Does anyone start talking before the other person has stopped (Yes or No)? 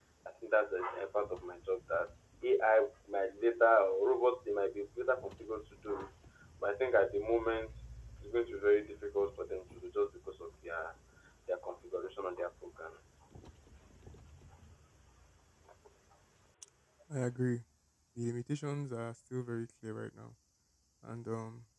No